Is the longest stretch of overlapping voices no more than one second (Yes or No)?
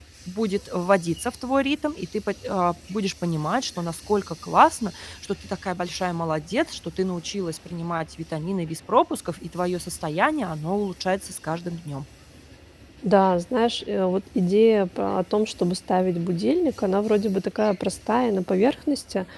Yes